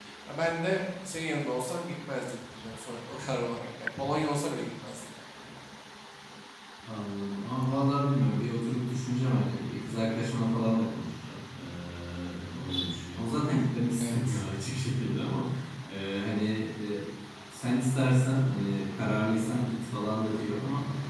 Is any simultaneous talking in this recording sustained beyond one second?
No

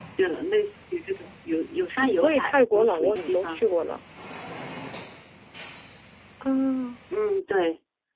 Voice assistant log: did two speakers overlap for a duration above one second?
Yes, from 2.1 s

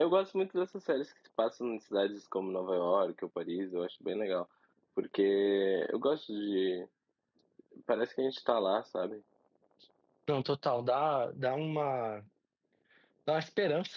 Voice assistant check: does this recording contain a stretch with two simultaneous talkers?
No

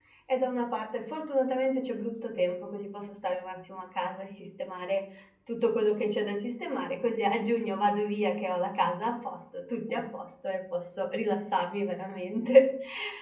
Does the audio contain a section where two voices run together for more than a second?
No

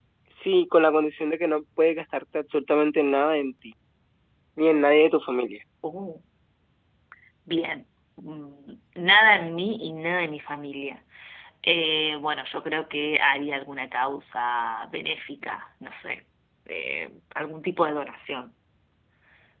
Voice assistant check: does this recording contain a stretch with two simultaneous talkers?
No

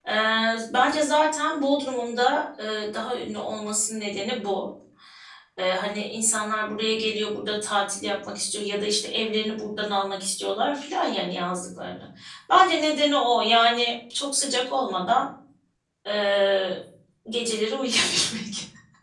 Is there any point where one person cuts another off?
No

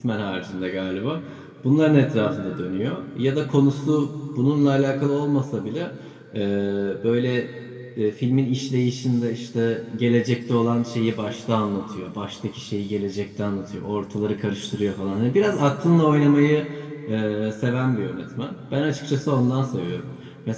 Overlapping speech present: No

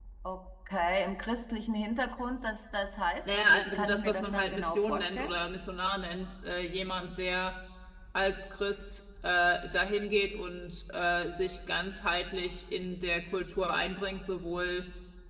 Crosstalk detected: Yes, from 3.2 s

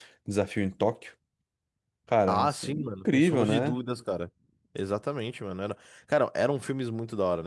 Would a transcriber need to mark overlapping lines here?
Yes, from 2.3 s

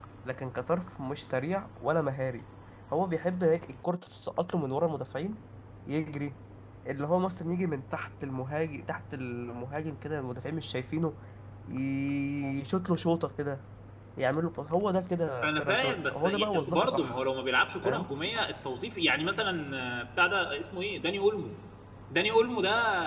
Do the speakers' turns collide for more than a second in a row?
Yes, from 15.4 s

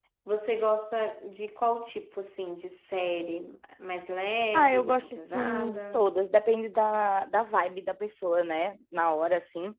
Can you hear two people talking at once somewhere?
Yes, from 4.5 s

